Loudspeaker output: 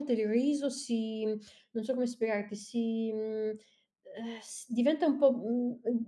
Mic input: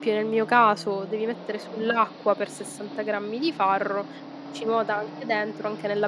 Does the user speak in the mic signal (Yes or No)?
Yes